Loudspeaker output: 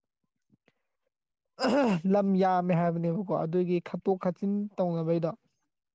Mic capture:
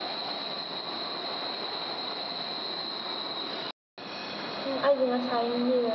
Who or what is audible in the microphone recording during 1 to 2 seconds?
neither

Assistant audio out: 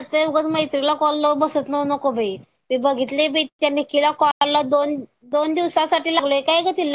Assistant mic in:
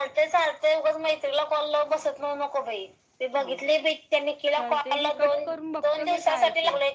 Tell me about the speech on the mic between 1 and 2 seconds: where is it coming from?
echo only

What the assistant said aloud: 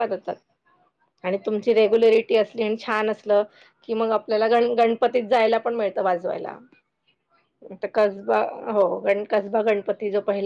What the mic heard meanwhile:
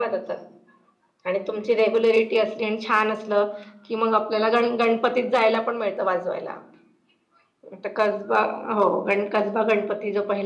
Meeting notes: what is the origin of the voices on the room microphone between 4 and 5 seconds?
echo only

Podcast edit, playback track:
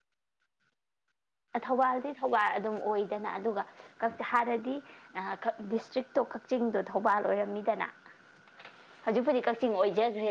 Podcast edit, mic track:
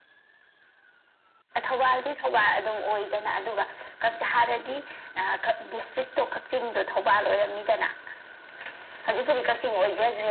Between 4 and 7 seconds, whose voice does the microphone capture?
echo only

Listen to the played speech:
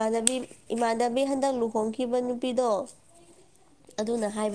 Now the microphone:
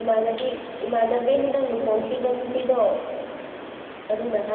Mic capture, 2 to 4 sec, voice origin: echo only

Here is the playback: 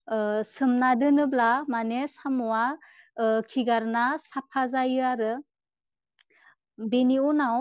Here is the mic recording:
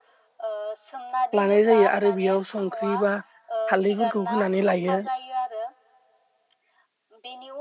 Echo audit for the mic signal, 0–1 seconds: echo only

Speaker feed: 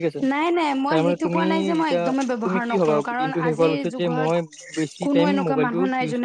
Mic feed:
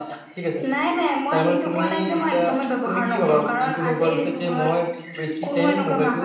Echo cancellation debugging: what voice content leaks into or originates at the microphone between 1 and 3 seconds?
echo only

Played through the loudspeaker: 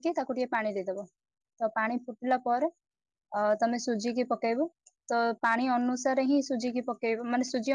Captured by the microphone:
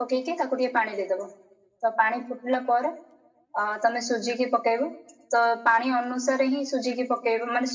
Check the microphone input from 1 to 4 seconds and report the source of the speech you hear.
echo only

